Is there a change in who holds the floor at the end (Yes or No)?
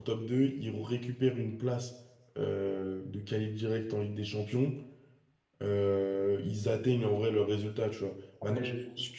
No